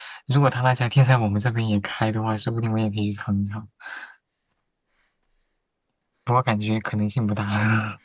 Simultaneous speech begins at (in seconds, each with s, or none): none